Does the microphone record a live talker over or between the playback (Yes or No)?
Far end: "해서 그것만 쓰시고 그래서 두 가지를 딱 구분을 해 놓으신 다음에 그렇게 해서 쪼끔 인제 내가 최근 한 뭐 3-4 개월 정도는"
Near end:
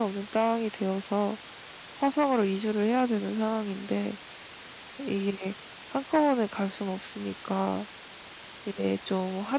Yes